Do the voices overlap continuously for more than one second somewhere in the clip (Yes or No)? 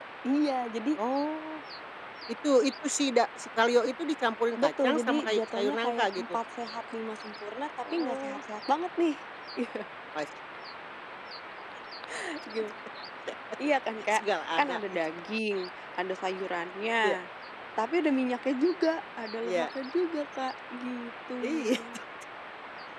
Yes